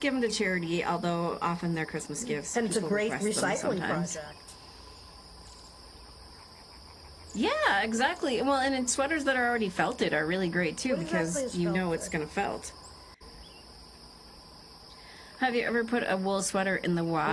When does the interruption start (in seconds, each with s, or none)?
2.2 s